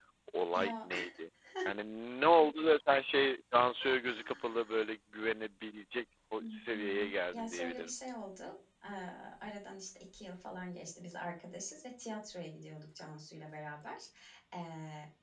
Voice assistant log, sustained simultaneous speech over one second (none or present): present